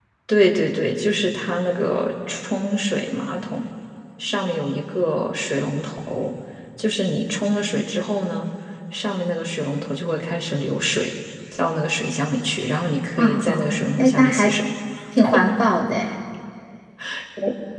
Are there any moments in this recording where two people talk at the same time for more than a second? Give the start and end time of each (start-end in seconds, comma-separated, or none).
13.2-14.5